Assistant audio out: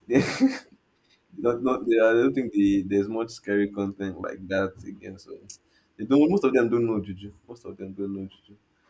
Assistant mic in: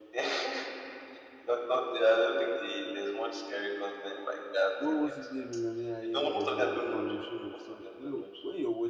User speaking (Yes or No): Yes